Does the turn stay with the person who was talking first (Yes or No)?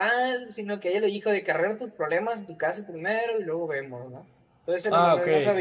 Yes